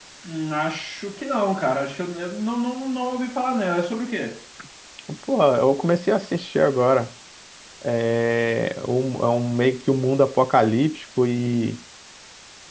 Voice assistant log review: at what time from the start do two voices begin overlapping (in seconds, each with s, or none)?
none